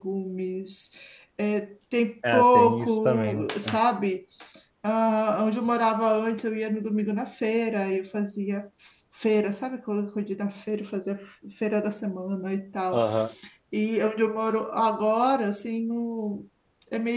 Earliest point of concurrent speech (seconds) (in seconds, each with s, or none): 2.3 s